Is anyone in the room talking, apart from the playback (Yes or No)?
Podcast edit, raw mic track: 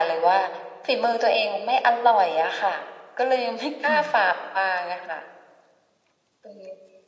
Yes